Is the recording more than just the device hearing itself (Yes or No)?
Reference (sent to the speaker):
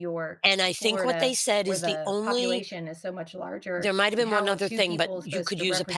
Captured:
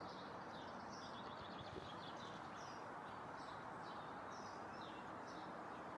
No